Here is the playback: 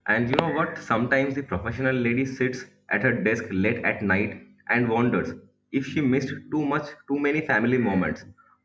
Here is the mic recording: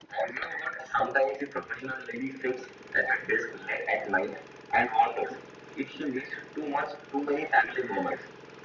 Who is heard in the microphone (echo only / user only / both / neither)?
echo only